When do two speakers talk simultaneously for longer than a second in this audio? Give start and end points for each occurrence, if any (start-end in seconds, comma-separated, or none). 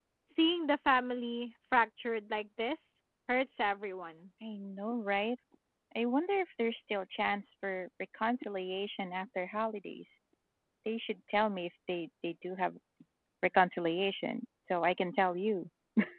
none